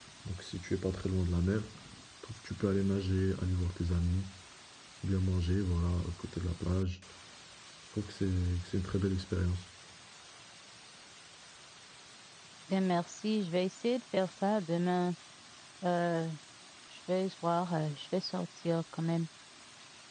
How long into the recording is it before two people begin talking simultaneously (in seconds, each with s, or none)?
none